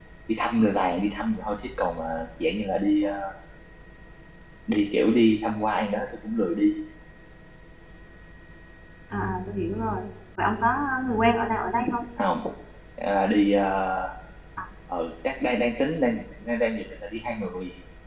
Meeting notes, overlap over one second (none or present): none